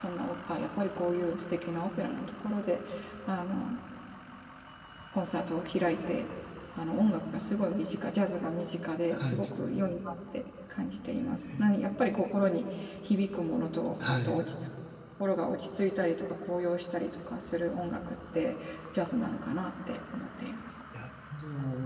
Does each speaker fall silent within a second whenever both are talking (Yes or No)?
Yes